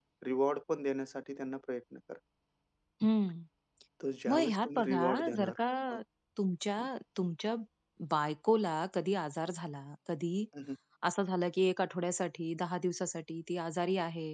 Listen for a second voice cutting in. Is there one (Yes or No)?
Yes